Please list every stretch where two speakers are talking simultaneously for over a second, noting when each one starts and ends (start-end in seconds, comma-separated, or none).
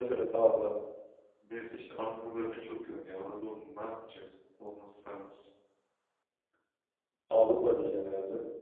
none